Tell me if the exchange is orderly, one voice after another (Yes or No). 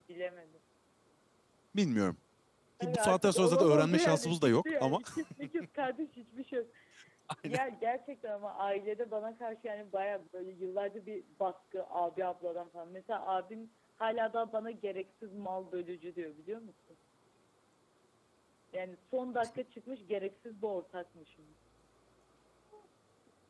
No